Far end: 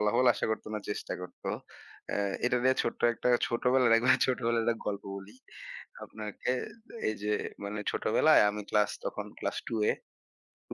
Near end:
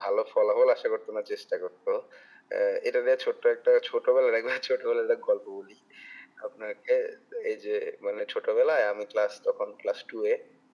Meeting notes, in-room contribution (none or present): none